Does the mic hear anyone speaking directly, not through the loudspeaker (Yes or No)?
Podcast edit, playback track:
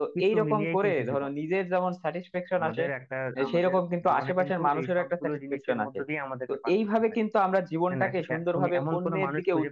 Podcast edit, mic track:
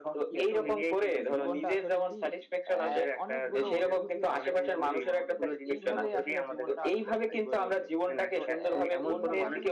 Yes